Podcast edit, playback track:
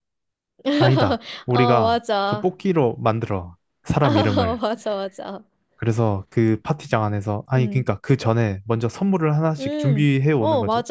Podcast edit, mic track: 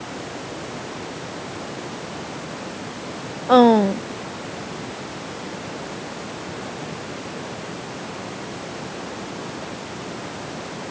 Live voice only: 어,

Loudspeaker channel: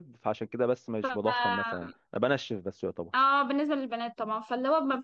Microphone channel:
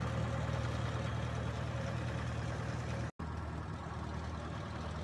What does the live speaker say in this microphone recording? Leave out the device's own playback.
none

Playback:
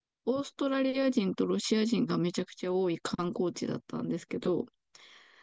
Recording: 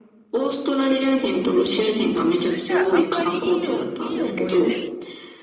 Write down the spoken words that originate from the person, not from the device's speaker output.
それじゃああんまりいいお、いい思い出

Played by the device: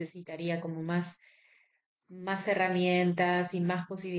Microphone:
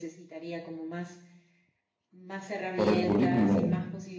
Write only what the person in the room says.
por el currículum

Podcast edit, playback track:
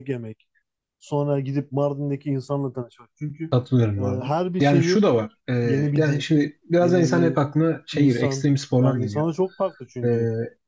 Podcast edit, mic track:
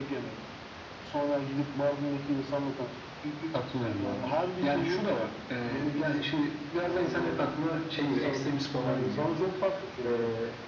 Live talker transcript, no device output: none

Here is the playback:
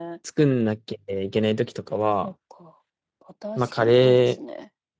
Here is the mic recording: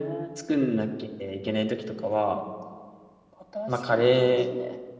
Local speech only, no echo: none

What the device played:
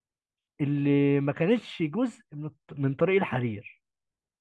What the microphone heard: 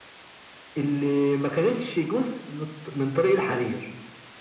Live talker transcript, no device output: none

